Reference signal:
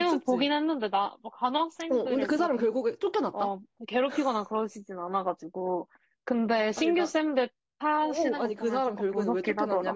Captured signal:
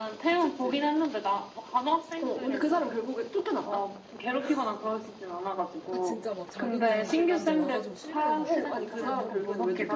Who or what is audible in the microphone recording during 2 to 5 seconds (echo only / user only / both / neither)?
echo only